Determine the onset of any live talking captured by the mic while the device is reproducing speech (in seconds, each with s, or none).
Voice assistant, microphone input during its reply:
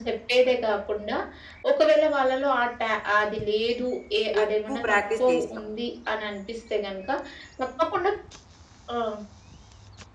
4.4 s